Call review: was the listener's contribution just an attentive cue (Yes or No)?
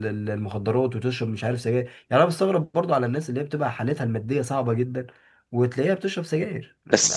No